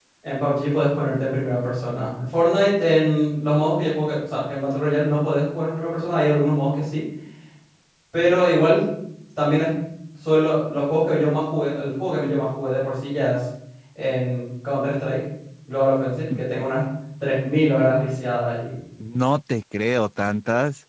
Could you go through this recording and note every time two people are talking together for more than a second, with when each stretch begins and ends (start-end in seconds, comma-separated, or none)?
none